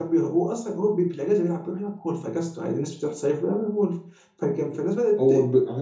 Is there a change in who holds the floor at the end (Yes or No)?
Yes